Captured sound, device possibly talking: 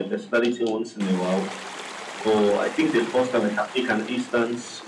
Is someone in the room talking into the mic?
No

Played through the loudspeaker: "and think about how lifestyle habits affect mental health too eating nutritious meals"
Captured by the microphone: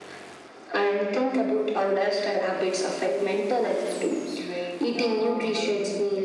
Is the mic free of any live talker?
No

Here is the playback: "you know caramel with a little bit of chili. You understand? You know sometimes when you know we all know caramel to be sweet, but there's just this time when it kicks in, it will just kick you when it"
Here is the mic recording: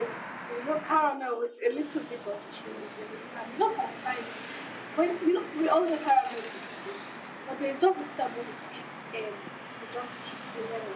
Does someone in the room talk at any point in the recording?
No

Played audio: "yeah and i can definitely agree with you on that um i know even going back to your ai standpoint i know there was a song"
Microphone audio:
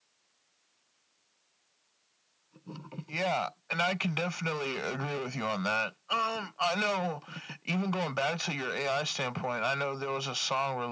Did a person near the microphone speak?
No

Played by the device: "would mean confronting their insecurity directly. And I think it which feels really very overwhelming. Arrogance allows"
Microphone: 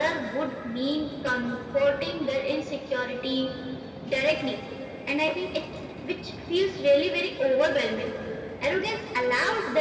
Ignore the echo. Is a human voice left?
No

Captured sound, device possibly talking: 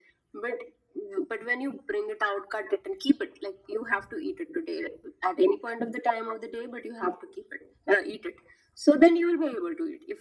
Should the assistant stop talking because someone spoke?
No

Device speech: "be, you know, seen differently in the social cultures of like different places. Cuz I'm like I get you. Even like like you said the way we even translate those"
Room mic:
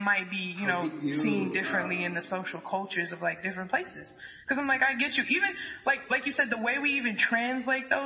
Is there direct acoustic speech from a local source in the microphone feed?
Yes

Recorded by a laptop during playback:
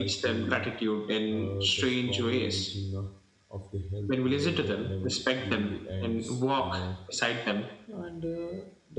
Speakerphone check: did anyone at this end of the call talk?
Yes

